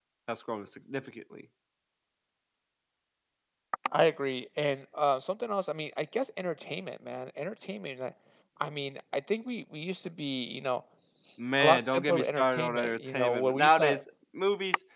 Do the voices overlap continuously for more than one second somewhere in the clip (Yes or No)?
Yes